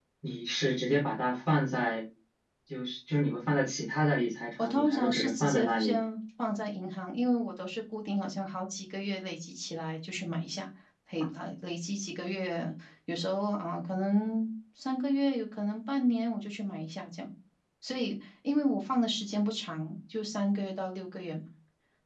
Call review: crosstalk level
present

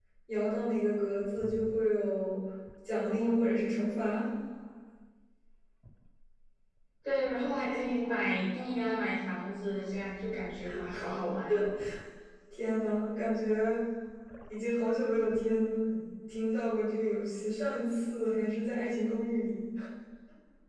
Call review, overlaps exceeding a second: none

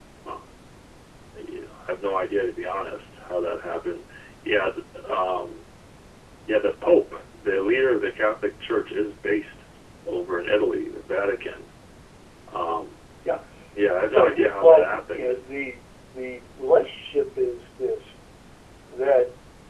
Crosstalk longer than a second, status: present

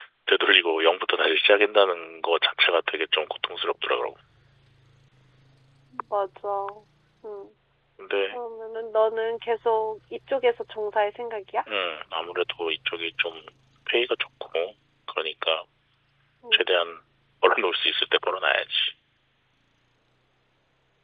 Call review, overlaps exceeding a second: none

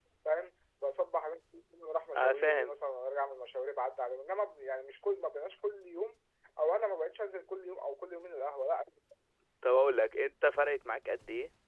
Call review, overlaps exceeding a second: none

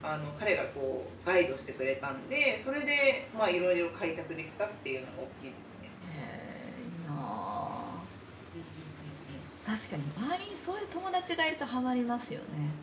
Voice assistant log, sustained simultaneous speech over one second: none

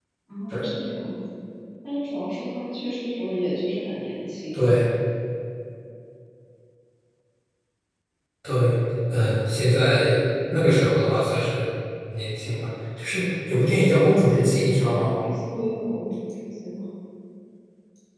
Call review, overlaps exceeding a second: none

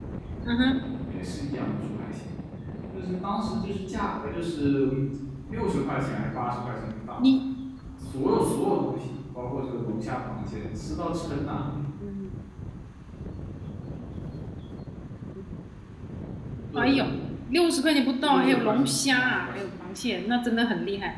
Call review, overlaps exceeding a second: present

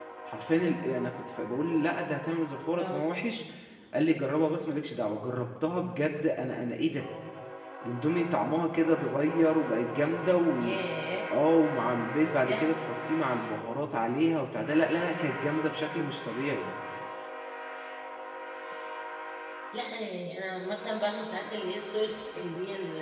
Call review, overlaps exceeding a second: none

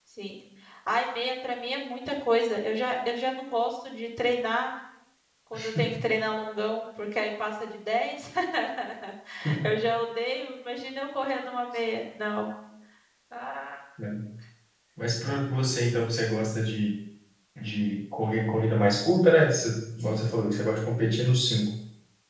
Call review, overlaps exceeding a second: none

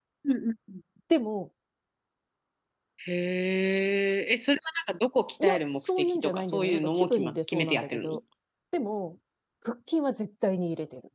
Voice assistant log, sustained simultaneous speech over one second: present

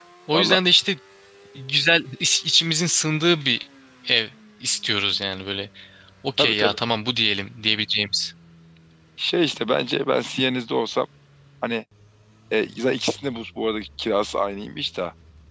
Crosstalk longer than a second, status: none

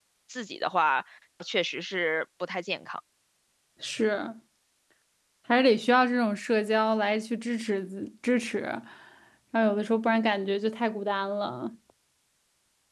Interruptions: none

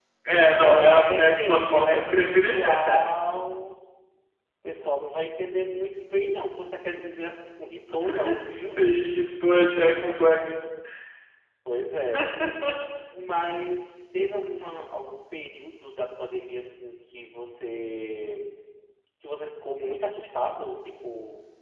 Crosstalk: present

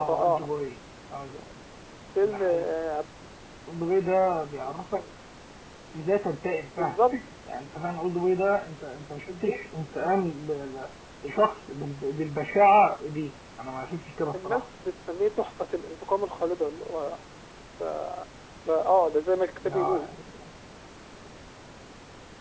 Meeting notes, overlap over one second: none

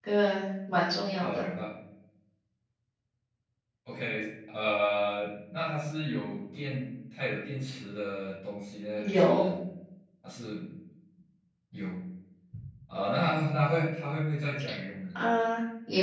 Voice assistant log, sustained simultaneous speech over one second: none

